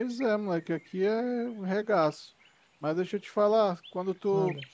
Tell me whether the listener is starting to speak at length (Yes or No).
No